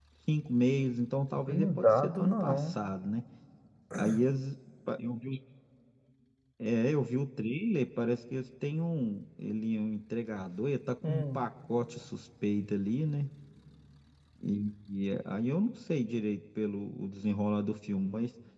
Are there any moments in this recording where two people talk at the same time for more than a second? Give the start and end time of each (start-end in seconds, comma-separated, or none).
1.5-2.8